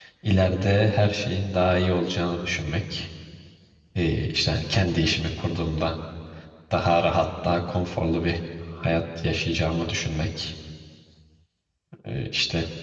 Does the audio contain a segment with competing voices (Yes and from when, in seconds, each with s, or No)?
No